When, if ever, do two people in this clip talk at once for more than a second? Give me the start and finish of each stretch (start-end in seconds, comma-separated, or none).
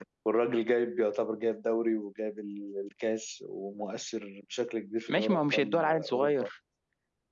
5.1-6.5